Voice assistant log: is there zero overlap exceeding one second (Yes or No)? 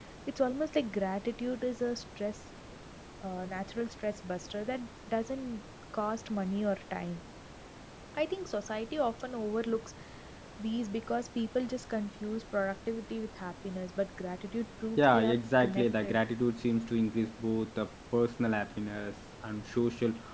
No